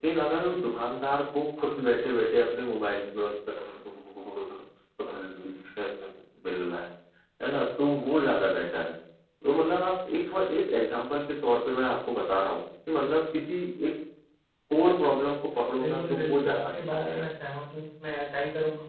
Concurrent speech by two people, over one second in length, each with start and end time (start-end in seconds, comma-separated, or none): 15.8-17.2